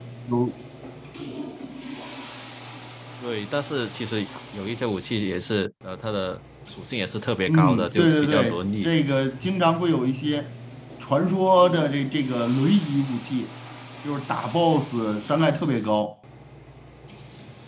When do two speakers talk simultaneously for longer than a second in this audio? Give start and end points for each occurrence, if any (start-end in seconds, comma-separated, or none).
7.5-8.9